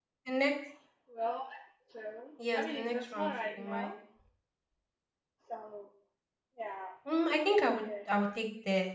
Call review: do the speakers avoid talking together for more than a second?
No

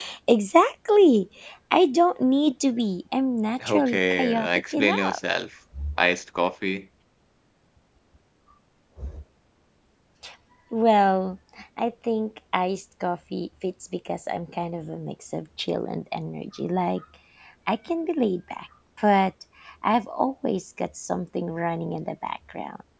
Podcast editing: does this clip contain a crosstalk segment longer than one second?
Yes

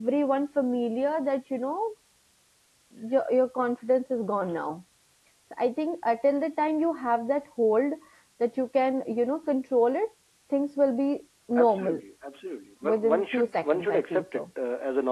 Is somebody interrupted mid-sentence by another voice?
Yes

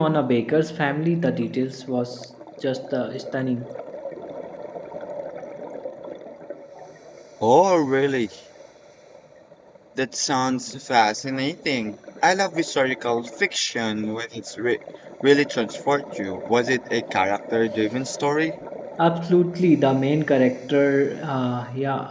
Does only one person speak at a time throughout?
Yes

